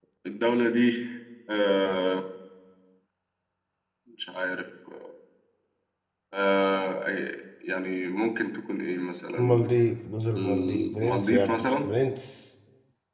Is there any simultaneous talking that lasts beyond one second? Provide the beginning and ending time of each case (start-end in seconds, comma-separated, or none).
10.4-11.9